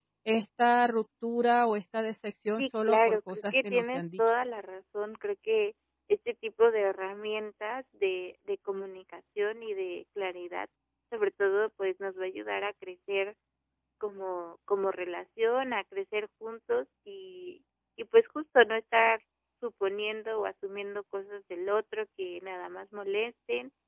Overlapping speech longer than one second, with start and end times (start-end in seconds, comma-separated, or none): 2.6-4.2